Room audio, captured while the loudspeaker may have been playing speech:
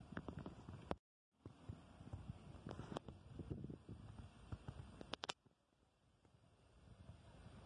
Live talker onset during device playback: none

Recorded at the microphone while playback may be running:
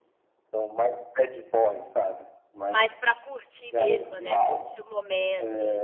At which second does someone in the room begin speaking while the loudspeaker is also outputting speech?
2.7 s

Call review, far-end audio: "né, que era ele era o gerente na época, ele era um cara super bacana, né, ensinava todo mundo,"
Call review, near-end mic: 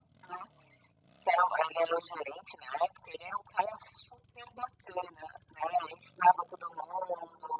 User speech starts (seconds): none

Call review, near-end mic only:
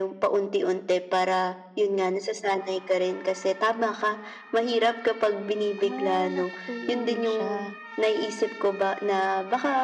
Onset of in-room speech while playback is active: 5.8 s

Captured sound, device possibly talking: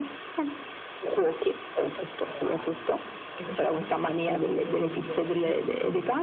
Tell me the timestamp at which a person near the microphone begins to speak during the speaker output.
2.2 s

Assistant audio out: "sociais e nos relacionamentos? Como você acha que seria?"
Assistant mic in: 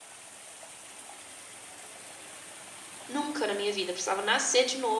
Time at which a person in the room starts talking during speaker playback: 3.1 s

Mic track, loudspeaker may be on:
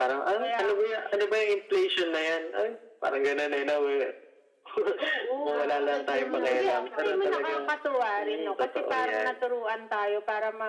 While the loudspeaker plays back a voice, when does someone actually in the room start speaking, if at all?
5.4 s

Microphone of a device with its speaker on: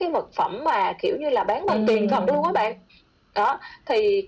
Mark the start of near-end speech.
1.7 s

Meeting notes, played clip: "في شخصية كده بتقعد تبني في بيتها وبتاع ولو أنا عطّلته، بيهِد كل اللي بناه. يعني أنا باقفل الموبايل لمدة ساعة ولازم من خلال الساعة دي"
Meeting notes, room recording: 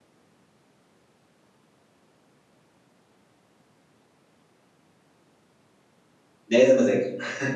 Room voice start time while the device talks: 6.5 s

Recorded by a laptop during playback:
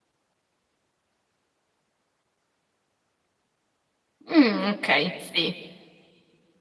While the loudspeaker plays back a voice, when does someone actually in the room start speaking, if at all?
4.2 s

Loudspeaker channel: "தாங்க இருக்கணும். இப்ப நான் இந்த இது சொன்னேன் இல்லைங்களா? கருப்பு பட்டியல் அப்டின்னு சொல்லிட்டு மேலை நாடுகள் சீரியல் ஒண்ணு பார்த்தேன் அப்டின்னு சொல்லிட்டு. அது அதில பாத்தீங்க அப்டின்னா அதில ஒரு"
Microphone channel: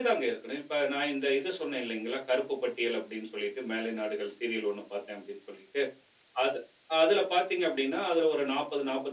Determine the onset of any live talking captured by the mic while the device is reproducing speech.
none

